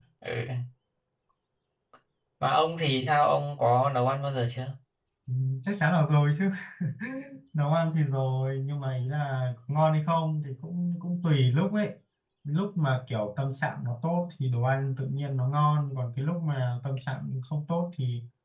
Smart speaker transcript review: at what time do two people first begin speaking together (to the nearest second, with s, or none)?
none